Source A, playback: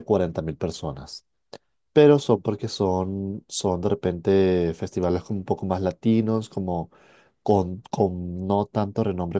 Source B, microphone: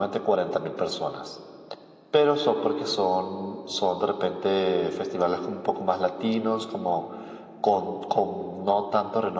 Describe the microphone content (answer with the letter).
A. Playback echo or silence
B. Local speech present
A